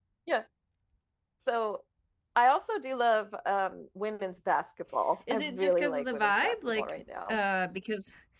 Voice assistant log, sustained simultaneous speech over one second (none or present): present